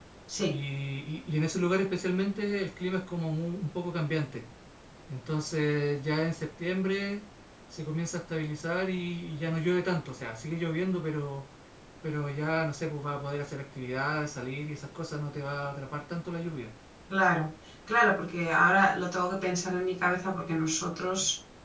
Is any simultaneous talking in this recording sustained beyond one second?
No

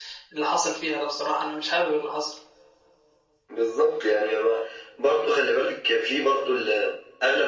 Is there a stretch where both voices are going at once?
No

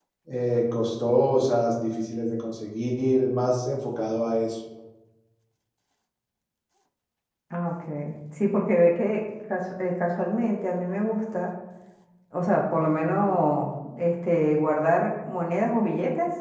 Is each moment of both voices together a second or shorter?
Yes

